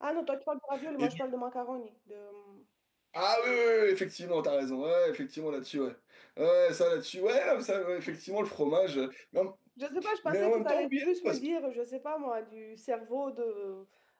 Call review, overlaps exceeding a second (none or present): present